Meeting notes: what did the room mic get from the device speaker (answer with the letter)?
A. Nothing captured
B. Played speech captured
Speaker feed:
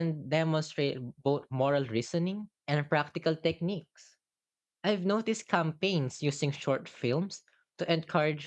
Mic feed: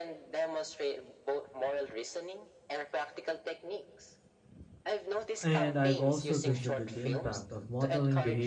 B